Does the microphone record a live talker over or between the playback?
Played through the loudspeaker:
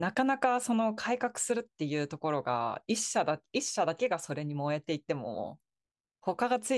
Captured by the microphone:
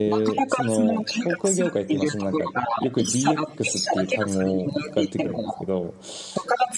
Yes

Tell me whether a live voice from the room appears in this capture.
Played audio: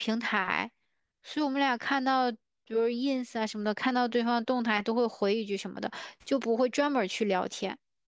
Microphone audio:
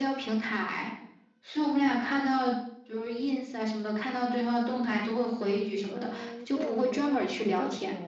Yes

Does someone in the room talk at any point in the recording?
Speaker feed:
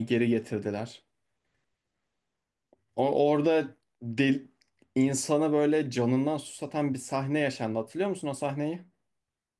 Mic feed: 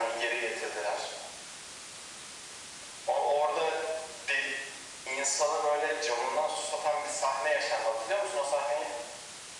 No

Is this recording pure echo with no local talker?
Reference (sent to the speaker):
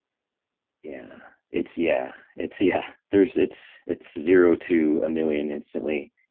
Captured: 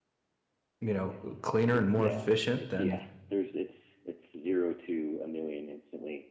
No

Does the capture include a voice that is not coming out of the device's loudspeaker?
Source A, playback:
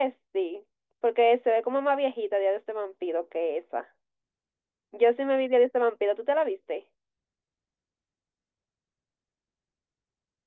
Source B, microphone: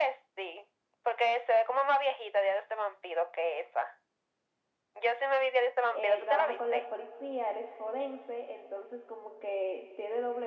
Yes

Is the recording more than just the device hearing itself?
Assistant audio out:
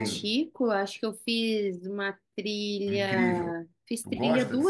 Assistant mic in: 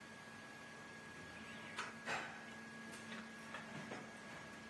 No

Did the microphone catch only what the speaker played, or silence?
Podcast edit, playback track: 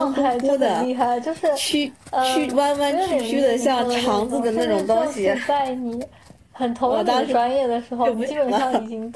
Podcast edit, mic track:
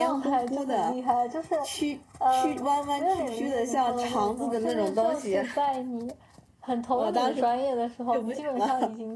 Yes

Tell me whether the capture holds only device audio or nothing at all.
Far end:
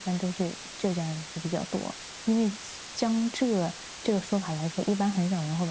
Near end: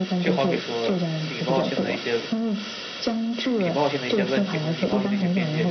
No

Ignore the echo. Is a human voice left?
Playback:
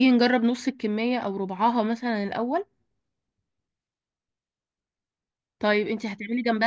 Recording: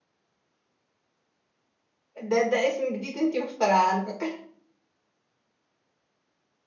Yes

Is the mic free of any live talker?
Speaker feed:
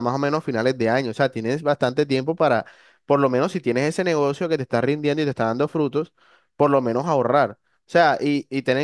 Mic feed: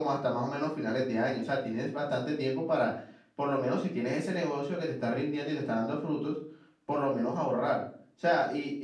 Yes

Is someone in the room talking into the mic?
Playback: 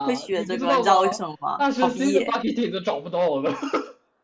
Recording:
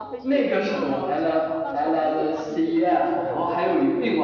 Yes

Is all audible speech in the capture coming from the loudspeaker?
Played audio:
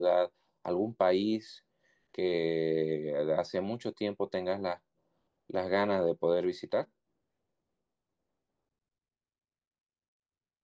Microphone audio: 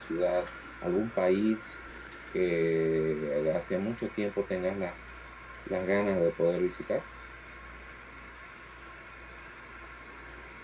Yes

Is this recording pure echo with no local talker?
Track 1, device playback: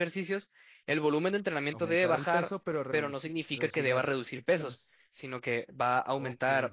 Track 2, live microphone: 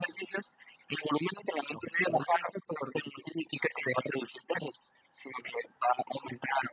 Yes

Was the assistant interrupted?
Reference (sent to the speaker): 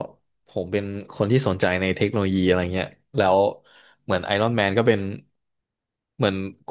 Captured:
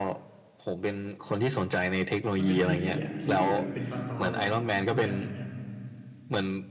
Yes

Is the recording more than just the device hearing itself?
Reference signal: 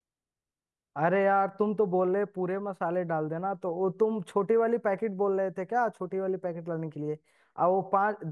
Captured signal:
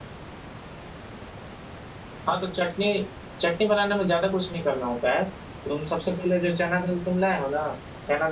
Yes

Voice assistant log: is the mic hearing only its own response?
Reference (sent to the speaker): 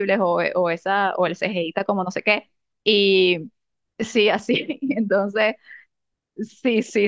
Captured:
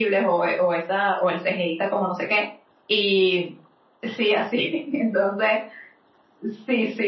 Yes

